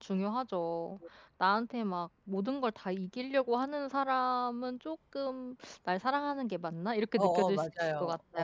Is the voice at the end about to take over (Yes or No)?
Yes